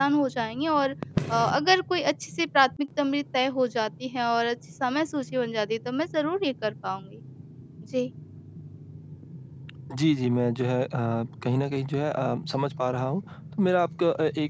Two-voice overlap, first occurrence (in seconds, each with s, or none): none